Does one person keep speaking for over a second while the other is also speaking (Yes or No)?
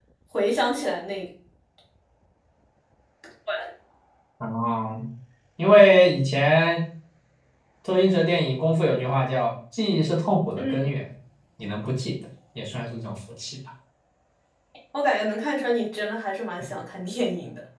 No